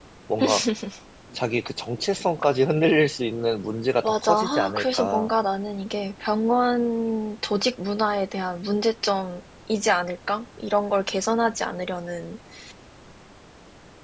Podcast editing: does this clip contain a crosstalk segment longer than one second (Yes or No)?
Yes